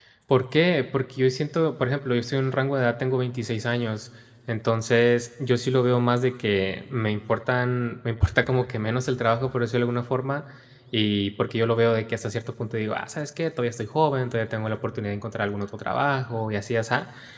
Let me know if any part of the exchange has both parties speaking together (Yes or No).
No